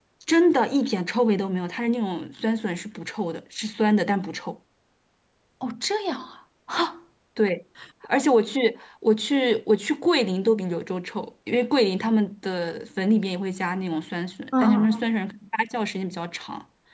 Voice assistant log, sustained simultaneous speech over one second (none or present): none